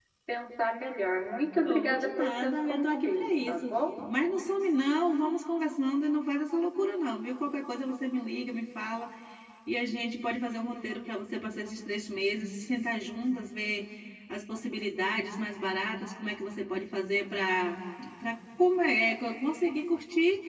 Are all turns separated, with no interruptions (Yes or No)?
No